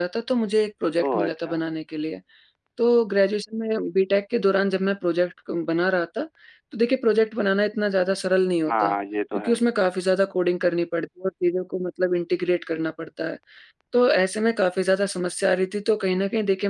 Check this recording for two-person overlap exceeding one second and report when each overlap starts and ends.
none

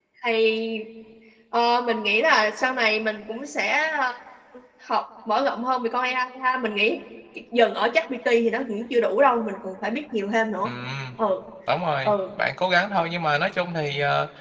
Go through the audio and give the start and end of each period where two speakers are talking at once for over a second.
none

